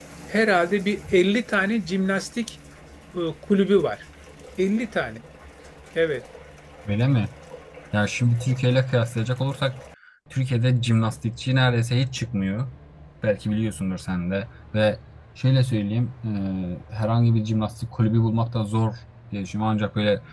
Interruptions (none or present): none